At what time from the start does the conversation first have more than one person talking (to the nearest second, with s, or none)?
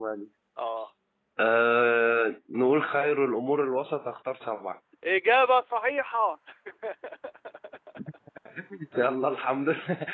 none